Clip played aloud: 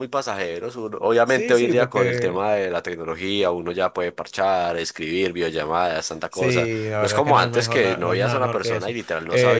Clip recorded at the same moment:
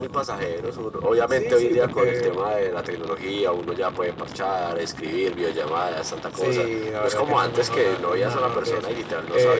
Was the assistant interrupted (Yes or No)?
No